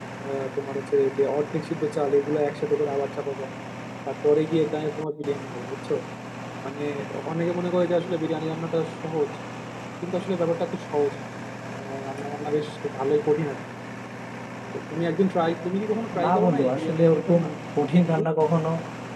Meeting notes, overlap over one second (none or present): present